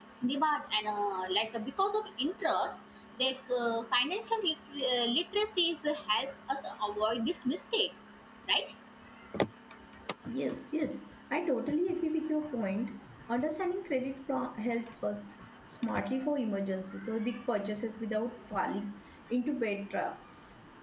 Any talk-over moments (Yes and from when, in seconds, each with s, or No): No